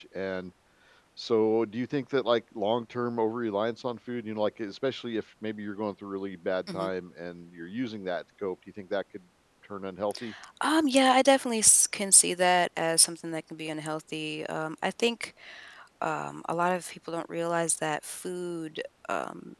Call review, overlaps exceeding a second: none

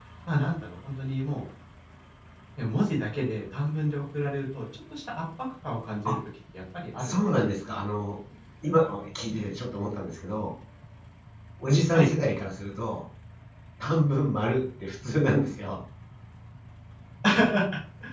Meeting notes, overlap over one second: none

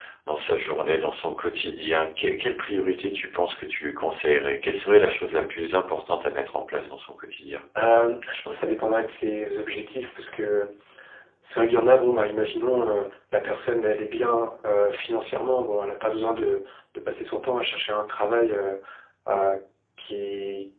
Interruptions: none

